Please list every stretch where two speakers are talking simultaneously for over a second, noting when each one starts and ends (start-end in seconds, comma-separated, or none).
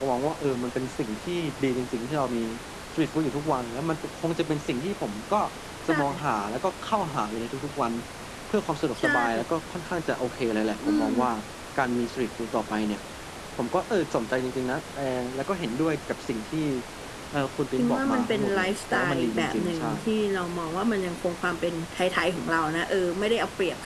17.8-19.9